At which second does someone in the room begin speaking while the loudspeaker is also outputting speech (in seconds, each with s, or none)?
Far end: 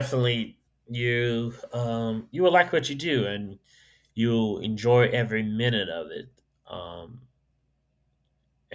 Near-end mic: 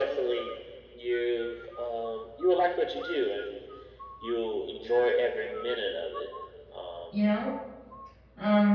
7.1 s